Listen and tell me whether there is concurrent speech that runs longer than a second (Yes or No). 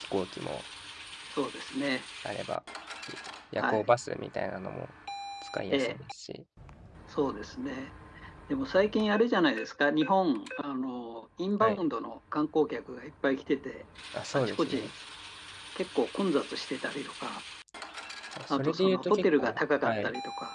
Yes